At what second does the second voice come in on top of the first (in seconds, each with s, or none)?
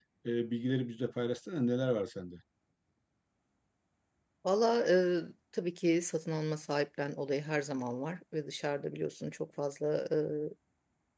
none